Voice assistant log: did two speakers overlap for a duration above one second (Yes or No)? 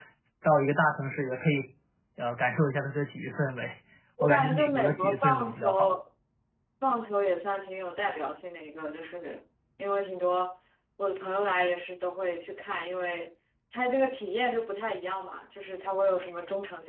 Yes